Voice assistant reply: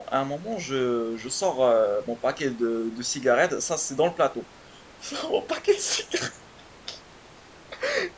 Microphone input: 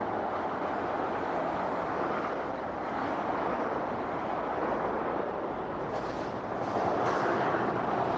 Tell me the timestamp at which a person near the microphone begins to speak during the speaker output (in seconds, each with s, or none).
none